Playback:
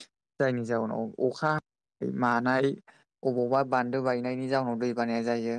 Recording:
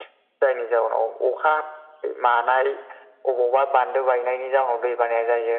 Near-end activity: none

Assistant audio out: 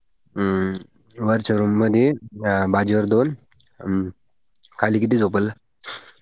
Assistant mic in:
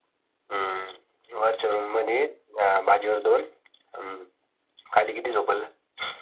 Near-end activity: none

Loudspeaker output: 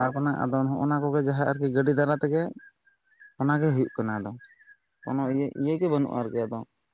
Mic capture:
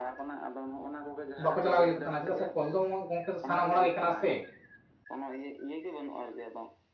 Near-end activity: present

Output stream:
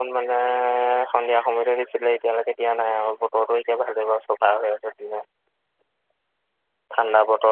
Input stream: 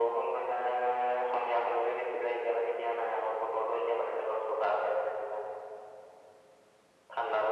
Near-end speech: none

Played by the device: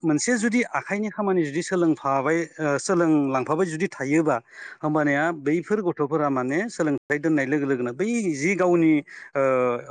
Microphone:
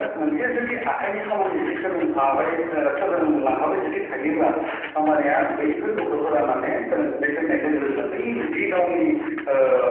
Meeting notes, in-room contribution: none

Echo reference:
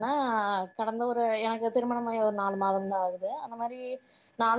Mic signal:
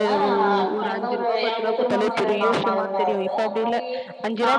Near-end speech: present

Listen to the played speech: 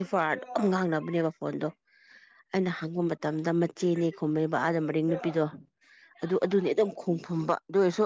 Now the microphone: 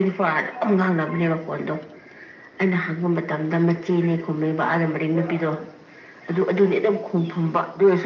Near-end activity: none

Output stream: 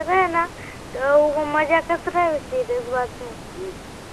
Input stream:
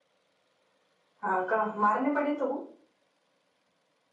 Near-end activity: present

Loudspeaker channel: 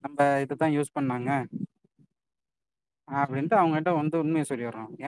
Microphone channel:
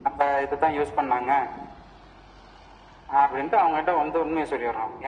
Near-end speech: none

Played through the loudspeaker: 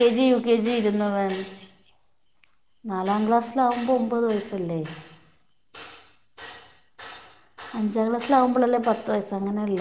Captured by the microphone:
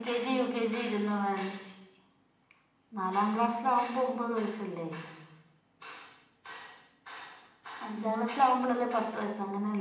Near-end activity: none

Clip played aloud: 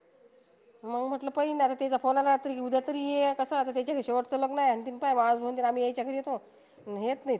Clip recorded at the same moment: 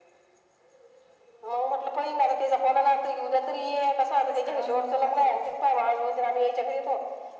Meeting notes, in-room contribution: present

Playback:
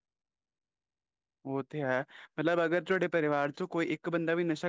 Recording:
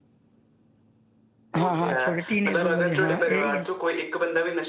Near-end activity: present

